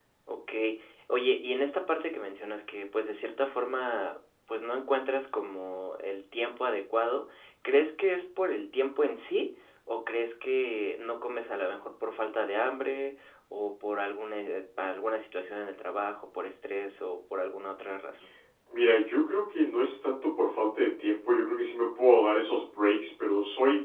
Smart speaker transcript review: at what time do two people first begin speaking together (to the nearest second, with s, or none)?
none